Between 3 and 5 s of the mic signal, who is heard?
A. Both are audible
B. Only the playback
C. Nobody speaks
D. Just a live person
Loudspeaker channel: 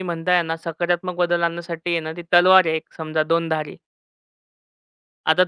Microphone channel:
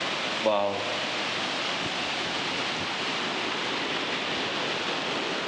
C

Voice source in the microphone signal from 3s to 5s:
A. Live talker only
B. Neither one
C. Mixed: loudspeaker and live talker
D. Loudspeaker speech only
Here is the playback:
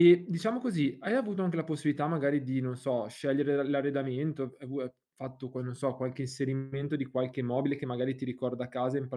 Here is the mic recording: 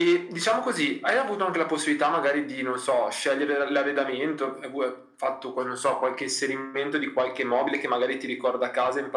D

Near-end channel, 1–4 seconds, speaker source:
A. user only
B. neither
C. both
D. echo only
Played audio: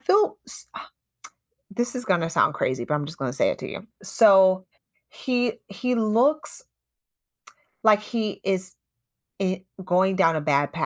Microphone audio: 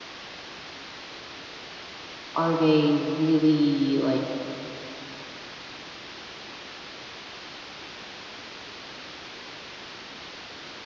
A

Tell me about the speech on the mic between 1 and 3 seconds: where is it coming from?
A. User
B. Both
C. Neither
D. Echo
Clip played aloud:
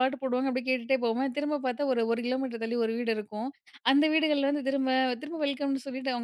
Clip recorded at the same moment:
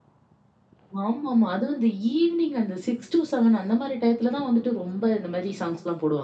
A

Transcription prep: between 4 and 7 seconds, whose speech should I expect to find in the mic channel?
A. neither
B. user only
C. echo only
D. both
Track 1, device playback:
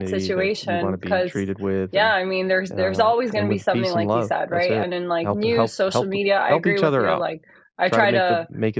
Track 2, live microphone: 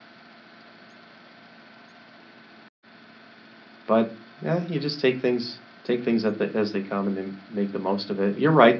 B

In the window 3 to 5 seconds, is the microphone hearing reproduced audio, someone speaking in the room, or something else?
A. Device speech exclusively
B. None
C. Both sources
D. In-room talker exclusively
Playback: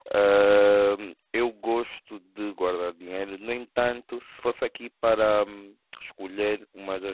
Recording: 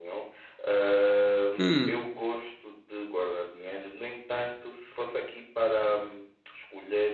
A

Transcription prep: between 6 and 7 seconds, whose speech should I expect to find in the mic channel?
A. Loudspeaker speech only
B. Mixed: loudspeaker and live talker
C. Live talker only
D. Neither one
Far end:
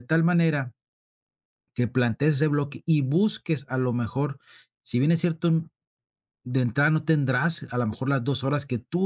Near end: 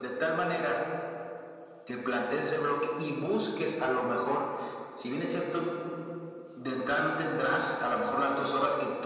A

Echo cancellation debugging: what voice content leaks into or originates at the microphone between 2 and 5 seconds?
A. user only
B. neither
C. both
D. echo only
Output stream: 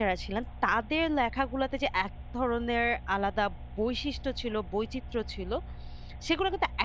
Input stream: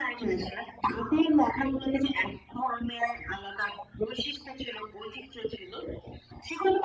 D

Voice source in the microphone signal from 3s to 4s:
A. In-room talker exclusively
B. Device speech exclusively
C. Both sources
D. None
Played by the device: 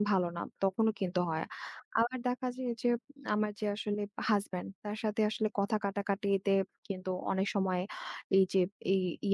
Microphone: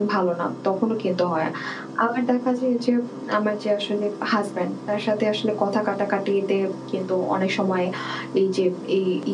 B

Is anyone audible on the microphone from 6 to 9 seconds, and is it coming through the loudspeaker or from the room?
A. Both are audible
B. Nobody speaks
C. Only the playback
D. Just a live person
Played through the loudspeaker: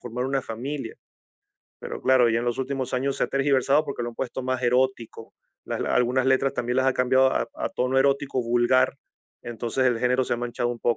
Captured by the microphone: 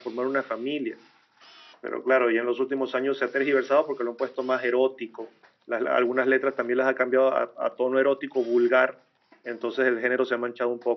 C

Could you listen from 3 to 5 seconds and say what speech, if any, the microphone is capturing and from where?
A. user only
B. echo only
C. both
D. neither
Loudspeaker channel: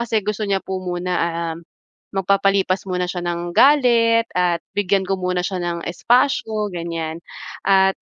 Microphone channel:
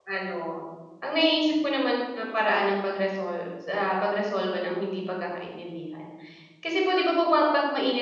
A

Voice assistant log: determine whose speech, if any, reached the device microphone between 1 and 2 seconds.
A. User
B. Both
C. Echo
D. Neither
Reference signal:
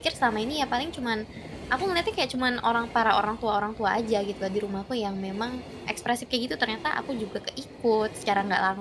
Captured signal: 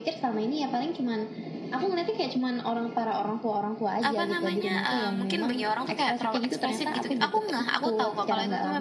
C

